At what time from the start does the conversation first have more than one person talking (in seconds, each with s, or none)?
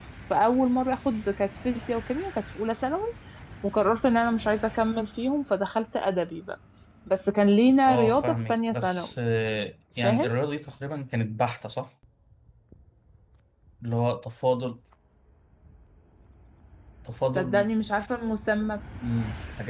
7.9 s